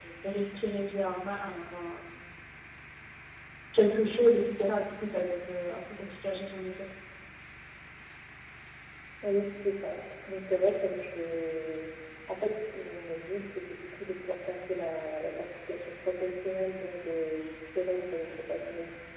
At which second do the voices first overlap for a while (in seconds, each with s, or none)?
none